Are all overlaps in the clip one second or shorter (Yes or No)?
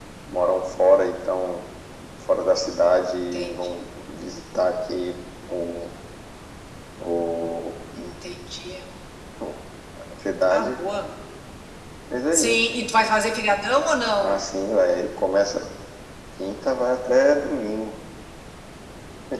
Yes